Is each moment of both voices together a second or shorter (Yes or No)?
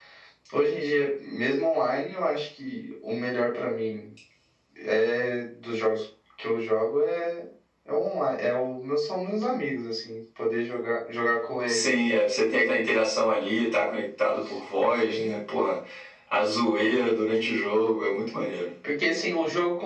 Yes